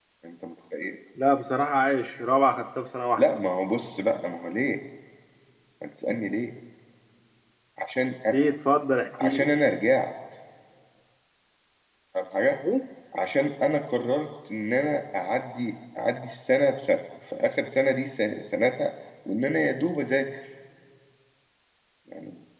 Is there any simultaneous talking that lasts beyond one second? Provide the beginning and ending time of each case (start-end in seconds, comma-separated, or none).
none